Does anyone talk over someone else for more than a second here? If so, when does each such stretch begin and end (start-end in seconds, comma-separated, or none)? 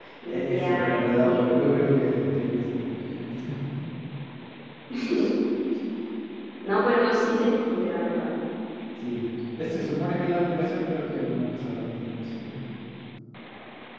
0.5-1.8